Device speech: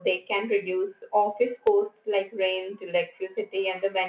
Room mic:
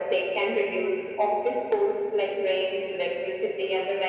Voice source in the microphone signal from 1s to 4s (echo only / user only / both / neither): echo only